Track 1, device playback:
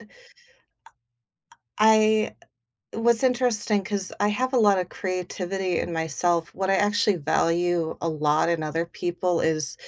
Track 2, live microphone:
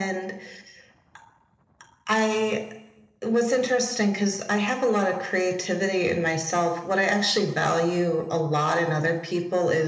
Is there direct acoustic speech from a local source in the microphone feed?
No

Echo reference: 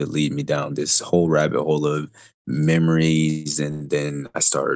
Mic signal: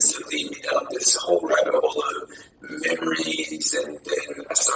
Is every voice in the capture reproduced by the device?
Yes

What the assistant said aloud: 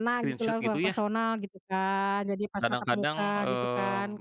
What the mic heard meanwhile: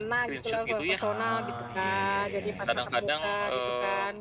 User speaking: Yes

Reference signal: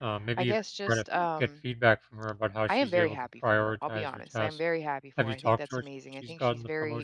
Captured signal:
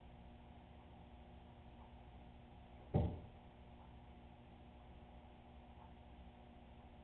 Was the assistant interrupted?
No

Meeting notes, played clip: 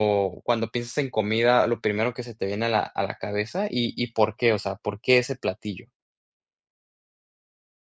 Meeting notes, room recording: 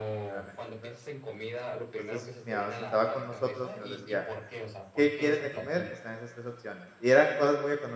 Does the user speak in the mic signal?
Yes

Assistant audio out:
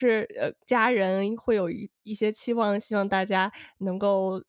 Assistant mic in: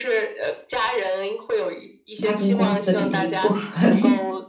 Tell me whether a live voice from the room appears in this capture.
Yes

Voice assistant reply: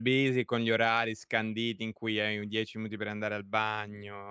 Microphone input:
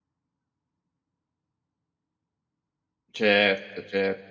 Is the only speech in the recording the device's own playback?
No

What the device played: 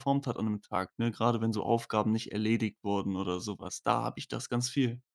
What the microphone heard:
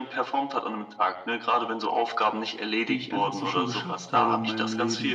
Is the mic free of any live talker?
No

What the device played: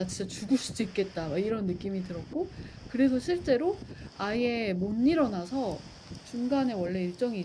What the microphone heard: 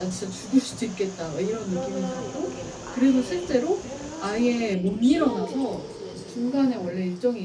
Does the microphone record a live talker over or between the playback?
Yes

